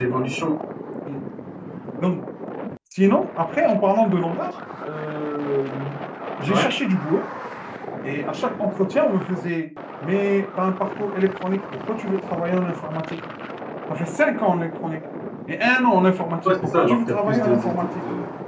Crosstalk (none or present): present